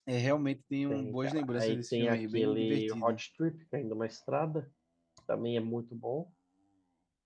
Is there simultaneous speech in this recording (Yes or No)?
Yes